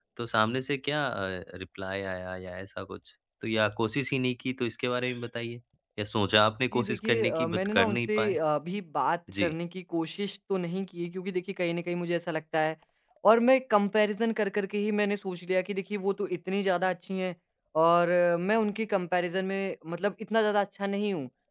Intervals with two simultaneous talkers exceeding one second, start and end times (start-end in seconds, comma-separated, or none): 6.7-8.4